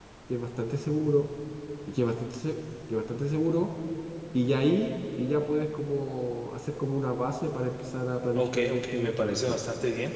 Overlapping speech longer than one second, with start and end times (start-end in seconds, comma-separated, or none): 8.4-9.6